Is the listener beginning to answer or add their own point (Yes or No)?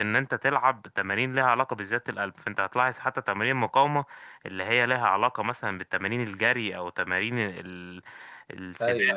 No